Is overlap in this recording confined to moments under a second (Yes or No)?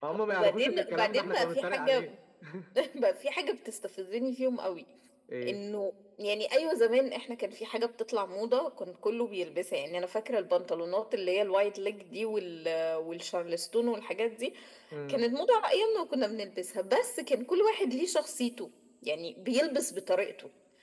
No